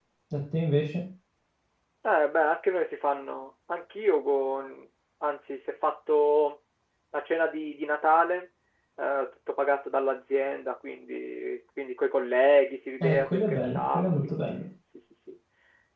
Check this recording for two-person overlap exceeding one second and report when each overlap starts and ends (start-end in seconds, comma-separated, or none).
13.0-14.6